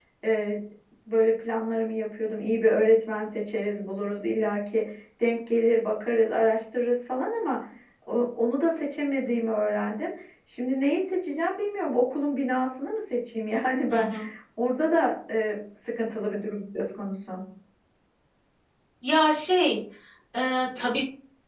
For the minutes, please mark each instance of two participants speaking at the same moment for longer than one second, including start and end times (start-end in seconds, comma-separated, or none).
none